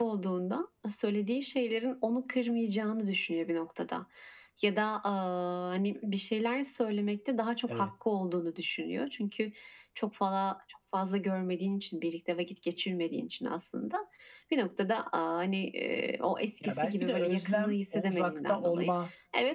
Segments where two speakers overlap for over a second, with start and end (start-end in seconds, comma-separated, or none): 16.6-18.9